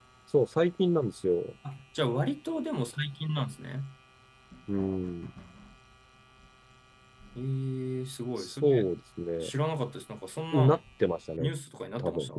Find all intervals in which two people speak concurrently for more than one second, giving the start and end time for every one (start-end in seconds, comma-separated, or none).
none